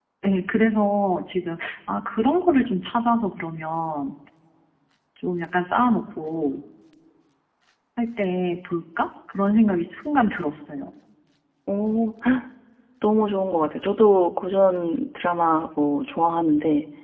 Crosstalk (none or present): none